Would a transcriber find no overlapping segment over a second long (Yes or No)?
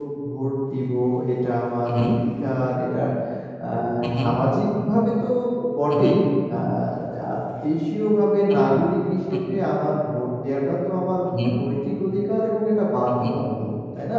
Yes